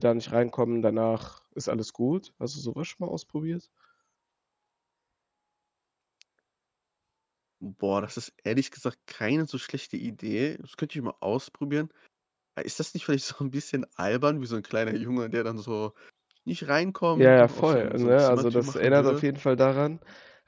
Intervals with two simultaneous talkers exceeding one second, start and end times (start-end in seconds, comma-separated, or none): 17.1-19.2